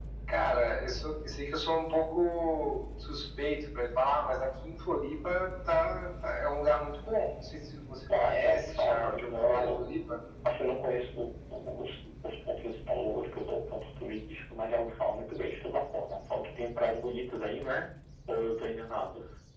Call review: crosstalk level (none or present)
present